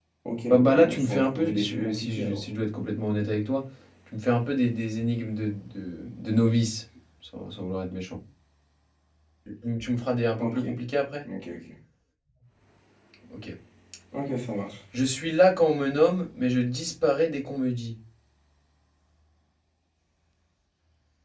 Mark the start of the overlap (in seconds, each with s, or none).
0.5 s